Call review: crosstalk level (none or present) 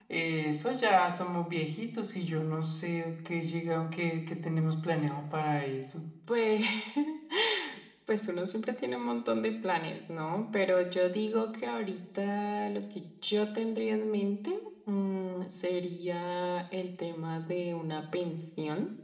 none